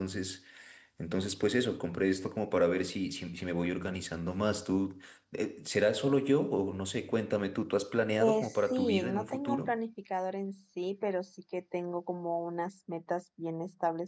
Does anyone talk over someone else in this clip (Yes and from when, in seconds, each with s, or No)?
Yes, from 8.2 s